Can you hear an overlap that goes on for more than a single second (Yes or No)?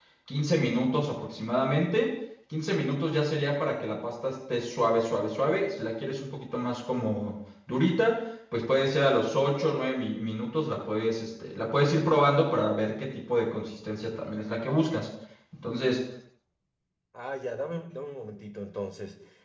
No